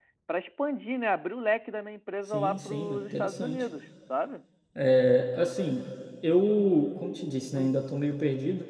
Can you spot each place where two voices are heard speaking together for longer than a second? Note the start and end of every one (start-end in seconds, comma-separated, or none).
2.3-3.6